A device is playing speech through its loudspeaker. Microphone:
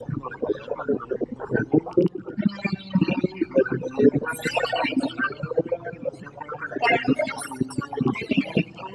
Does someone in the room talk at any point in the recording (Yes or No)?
No